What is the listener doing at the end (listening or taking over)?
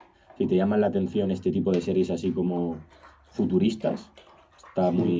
listening